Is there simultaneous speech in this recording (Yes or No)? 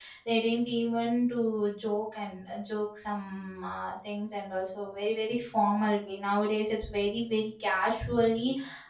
No